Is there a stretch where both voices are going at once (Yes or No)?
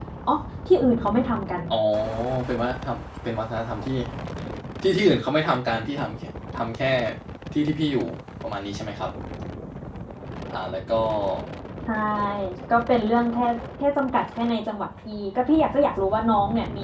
No